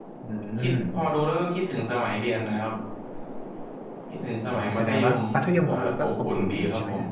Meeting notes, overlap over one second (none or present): present